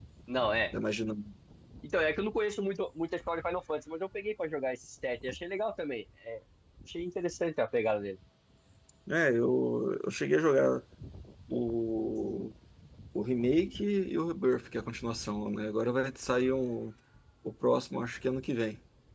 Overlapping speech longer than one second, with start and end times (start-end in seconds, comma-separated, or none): none